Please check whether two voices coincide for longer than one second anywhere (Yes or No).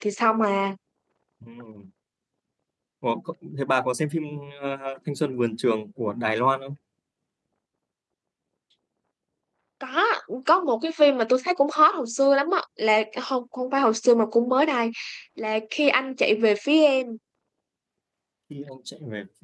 No